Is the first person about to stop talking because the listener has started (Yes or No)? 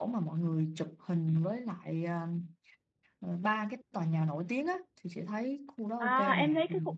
Yes